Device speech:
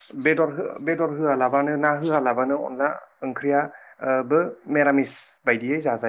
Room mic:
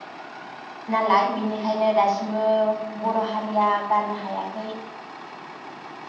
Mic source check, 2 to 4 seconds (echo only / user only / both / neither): user only